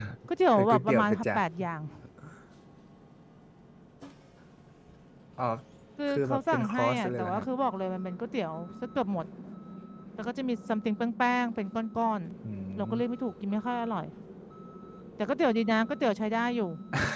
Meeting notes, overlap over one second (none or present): present